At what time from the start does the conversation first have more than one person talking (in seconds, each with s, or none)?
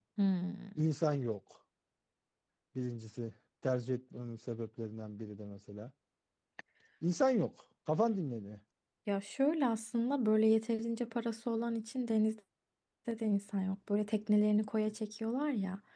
none